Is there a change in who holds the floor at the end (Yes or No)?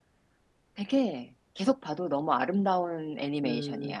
Yes